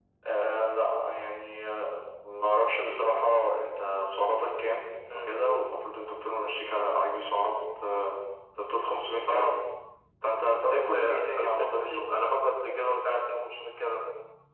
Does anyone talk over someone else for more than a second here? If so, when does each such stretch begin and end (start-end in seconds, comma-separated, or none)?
10.5-12.1